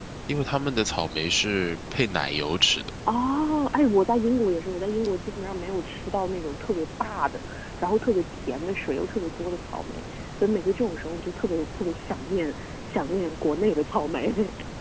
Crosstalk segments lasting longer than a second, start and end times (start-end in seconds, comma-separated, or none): none